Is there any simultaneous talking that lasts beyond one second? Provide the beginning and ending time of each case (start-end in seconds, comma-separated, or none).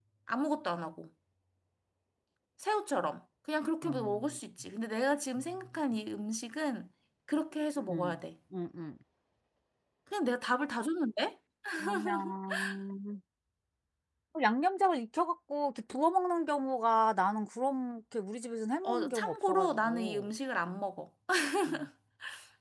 18.8-20.3